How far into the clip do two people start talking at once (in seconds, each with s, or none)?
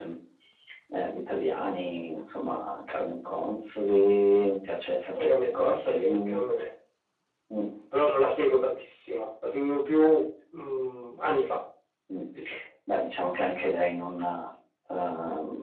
5.2 s